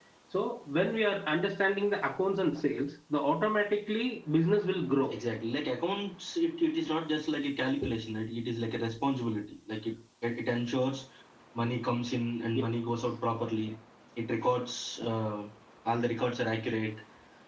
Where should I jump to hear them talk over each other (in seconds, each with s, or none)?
none